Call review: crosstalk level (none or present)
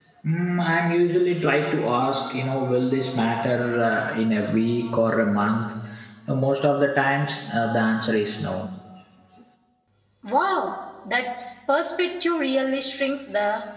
none